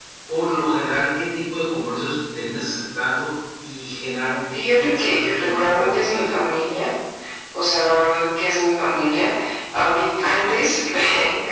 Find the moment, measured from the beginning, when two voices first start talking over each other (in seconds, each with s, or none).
4.5 s